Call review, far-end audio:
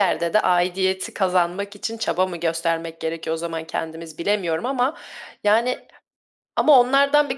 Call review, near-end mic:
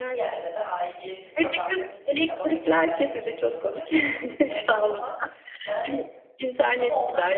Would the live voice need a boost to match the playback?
No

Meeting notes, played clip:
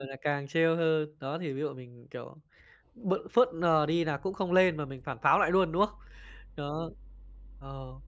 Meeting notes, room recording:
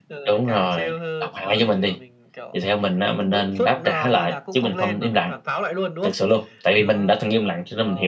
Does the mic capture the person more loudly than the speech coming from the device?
Yes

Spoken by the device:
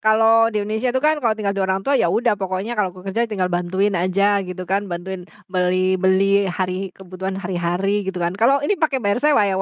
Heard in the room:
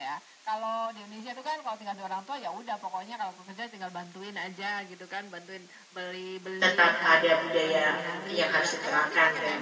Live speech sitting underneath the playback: No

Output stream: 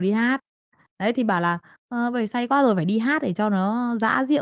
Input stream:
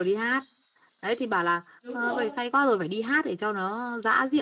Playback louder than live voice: Yes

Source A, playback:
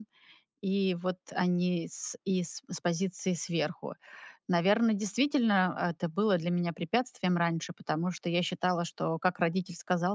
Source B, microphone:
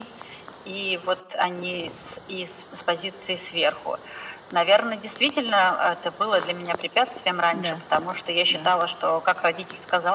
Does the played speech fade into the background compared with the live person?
No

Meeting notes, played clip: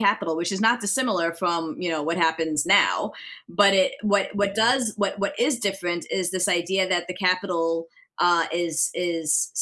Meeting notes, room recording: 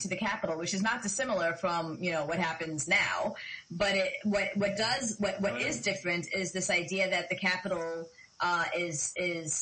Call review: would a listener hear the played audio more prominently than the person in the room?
Yes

